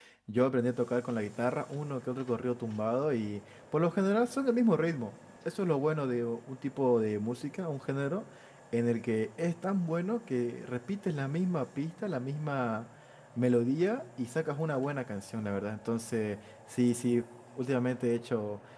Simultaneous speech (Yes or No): No